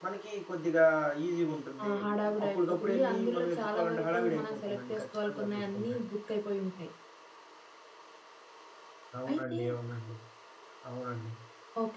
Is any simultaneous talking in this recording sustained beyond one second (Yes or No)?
Yes